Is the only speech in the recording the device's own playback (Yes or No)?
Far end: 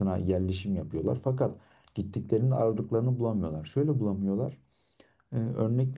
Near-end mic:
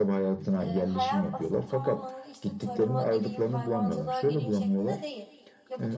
No